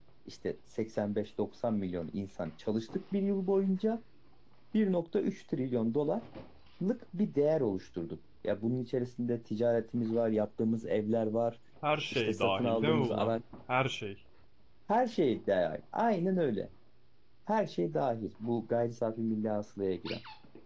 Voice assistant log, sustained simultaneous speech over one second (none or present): present